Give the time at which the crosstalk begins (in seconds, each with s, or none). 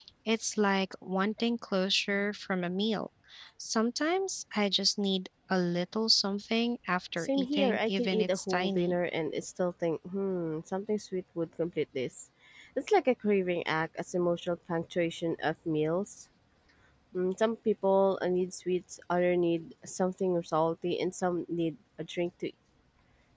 7.2 s